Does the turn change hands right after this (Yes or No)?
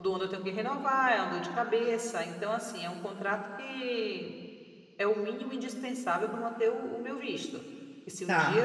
No